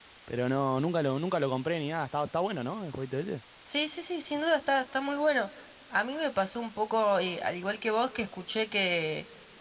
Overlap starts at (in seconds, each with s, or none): none